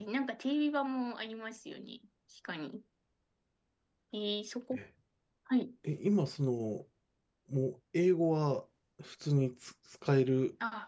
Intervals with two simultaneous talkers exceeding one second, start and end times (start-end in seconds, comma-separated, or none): none